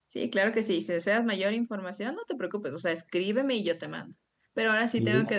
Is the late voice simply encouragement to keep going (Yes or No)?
Yes